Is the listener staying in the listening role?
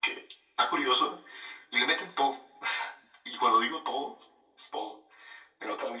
Yes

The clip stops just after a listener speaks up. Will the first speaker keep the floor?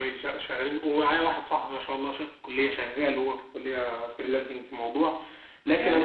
No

